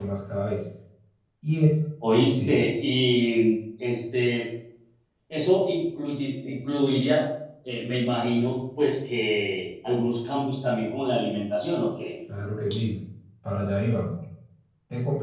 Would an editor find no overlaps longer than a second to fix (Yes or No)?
Yes